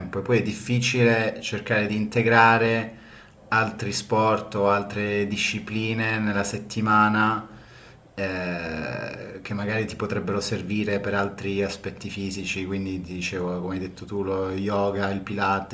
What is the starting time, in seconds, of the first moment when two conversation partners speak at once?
none

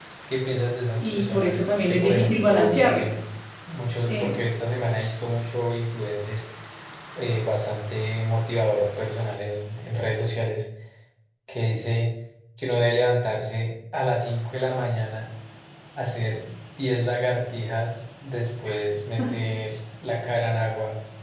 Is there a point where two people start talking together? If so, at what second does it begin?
1.0 s

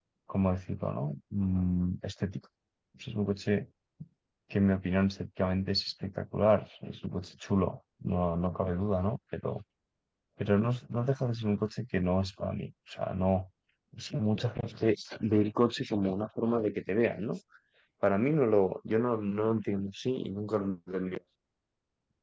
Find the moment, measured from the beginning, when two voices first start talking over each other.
none

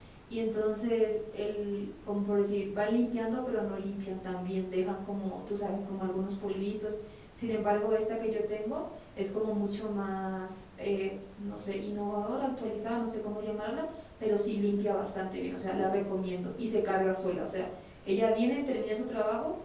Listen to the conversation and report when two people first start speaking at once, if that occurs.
none

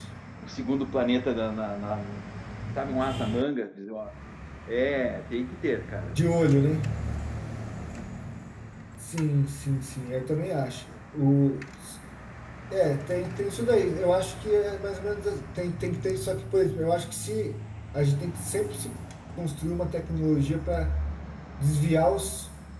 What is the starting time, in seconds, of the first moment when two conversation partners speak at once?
none

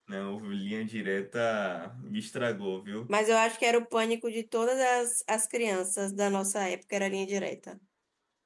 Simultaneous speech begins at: none

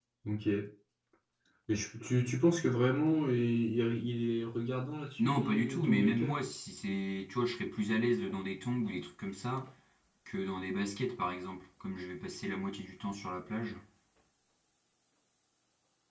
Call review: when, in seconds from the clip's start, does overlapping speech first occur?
5.2 s

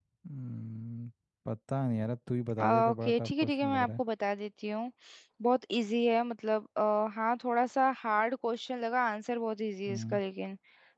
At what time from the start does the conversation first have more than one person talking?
2.6 s

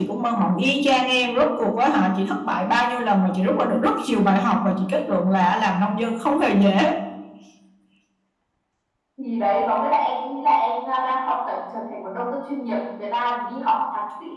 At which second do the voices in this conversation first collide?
none

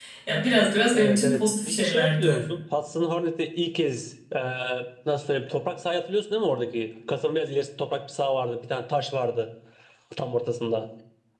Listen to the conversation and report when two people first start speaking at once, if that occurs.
0.9 s

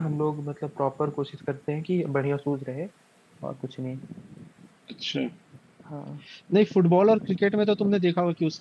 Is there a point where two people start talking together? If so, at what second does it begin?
none

